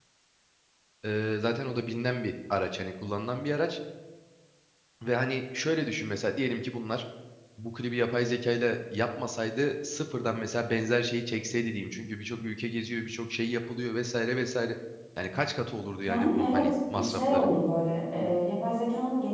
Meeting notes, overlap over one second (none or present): present